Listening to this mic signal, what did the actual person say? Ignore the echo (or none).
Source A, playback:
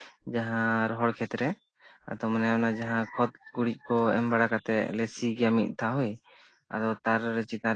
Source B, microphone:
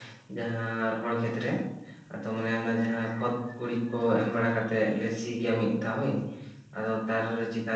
none